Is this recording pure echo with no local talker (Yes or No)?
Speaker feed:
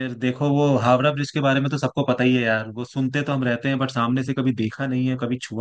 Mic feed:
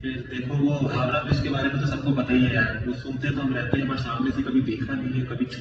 Yes